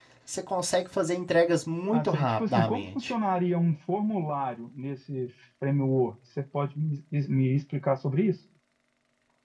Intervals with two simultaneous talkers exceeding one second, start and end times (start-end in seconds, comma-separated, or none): 1.9-3.1